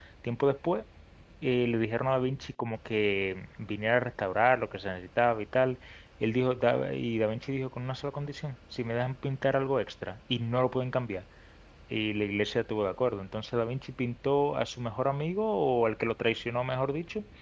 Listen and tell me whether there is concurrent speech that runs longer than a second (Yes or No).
No